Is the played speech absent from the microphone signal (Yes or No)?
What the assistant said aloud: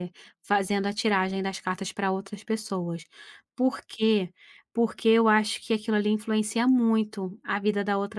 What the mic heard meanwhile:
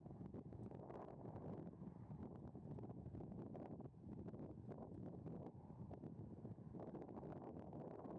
Yes